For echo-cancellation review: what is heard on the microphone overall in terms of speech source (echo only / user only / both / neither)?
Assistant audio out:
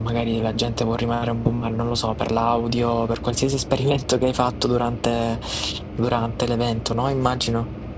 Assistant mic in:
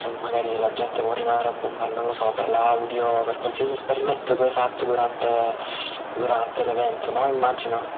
echo only